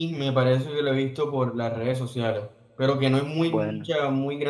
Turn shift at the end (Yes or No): No